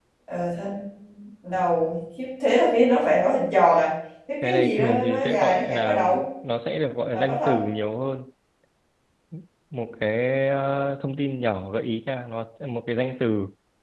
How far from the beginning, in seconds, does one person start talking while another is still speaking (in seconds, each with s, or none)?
4.4 s